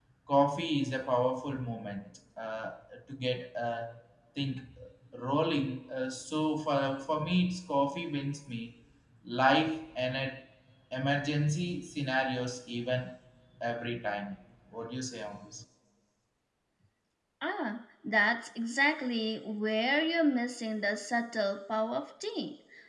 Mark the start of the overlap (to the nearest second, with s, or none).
none